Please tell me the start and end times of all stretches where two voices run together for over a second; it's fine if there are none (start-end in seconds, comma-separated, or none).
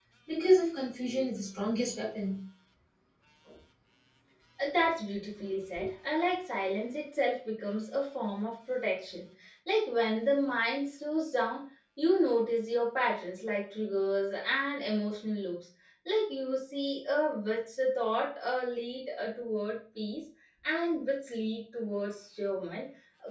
none